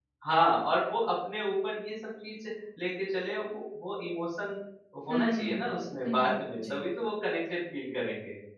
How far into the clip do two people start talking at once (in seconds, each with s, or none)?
5.1 s